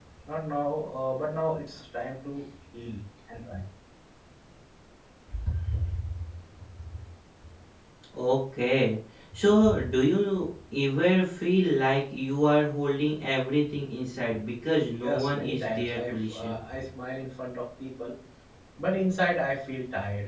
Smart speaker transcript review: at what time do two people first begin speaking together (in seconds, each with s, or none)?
14.9 s